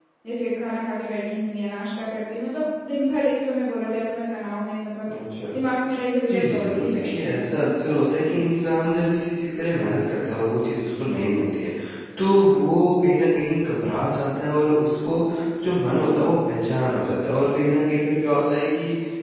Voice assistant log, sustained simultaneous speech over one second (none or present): present